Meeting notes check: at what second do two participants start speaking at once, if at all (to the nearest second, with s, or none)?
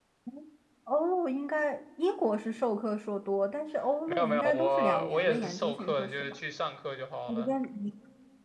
4 s